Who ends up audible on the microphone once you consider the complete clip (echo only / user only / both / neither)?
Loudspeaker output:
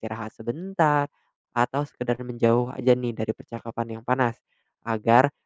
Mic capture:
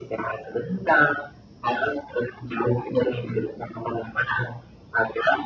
echo only